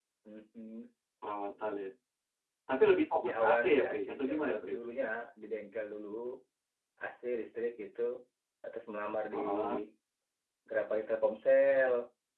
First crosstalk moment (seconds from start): 3 s

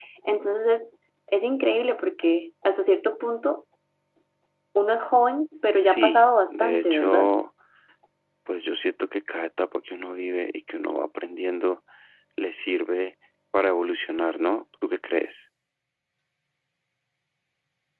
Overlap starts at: 6 s

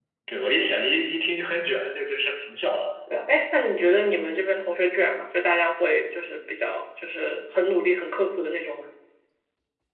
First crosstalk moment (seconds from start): none

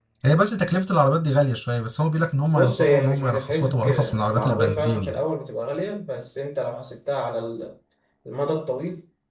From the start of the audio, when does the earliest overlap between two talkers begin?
3 s

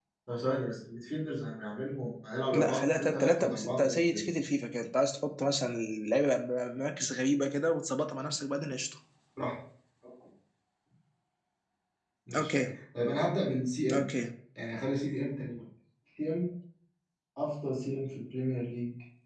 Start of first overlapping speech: 3 s

